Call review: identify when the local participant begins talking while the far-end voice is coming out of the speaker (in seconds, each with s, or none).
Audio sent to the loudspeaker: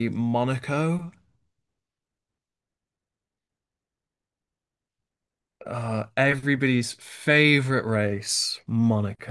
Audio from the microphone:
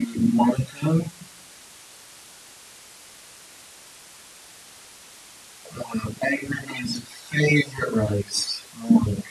none